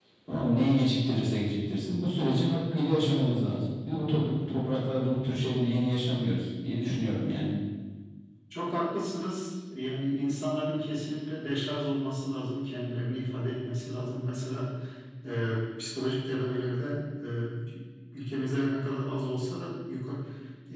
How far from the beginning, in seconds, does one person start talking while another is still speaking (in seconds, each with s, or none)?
none